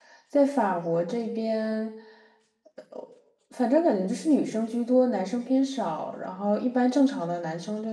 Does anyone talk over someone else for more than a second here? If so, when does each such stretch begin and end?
none

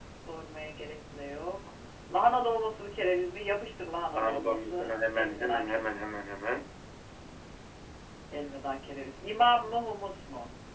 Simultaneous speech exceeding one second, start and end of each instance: 4.1-5.9

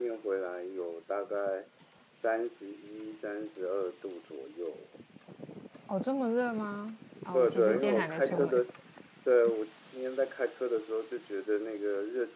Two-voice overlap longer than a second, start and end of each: 7.3-8.6

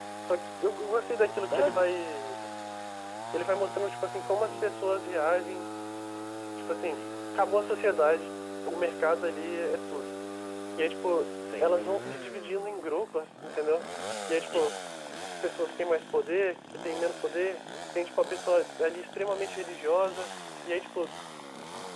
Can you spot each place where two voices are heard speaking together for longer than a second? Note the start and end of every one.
none

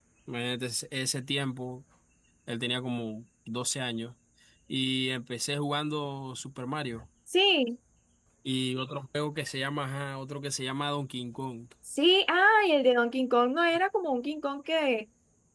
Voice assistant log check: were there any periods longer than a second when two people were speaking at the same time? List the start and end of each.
none

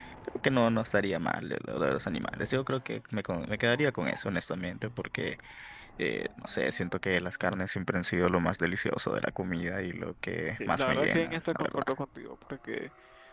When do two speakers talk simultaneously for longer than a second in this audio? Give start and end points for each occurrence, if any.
10.7-11.9

